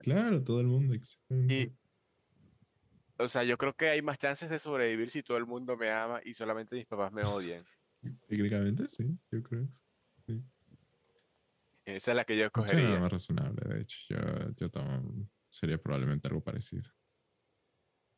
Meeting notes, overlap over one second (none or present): none